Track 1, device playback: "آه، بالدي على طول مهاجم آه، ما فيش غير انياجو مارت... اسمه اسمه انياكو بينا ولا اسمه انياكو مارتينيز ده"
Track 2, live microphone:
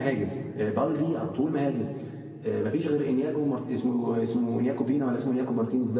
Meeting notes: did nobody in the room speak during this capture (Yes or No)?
Yes